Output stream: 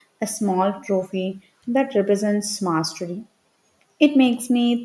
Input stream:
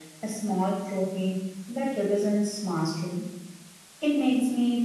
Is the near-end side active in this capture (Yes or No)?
No